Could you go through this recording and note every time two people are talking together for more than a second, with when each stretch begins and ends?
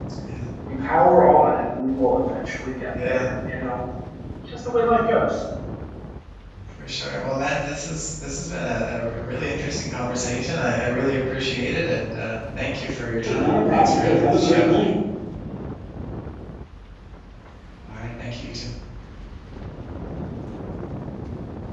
13.2-14.9

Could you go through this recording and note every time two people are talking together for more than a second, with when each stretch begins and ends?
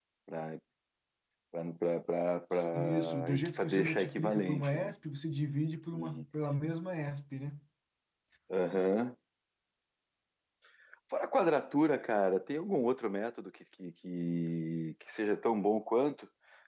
2.7-4.9

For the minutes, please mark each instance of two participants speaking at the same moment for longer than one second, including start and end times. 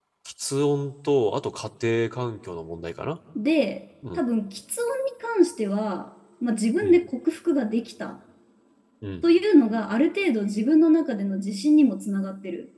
none

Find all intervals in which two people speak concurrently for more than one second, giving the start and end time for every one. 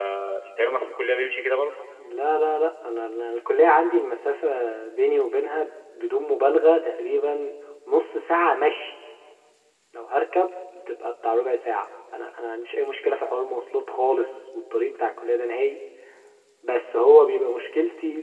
none

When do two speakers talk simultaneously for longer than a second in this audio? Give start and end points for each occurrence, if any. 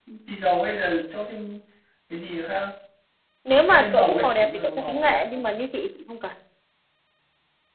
3.7-5.6

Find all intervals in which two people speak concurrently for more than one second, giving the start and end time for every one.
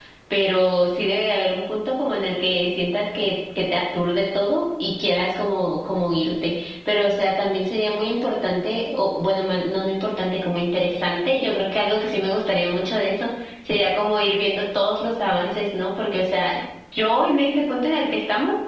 none

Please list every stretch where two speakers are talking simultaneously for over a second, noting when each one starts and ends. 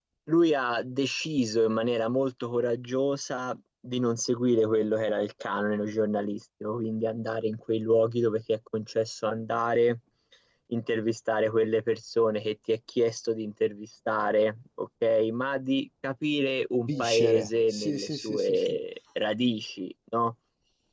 16.9-18.8

